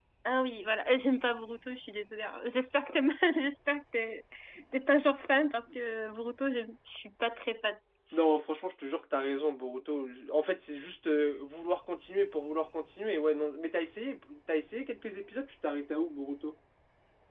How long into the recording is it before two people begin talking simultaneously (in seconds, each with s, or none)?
none